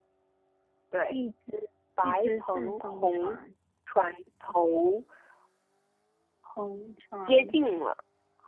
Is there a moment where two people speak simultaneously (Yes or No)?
Yes